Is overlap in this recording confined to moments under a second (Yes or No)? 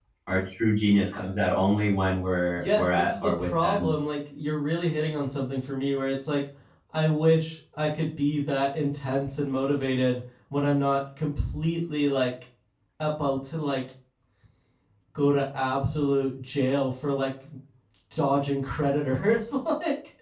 No